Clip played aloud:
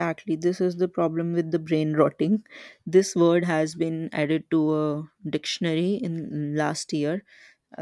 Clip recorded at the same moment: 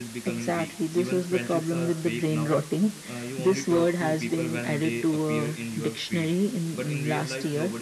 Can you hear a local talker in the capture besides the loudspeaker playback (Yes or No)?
Yes